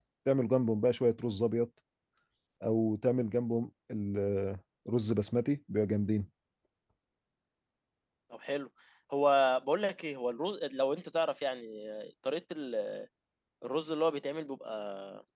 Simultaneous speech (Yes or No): No